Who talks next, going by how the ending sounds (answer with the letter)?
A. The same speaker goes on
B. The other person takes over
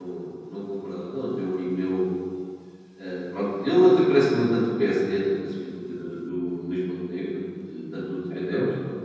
A